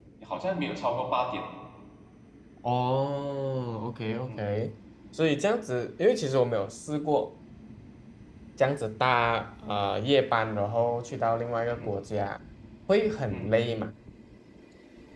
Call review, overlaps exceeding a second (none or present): none